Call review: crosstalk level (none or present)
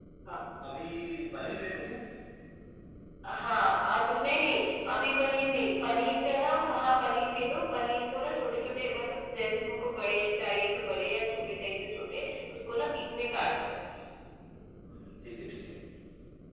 none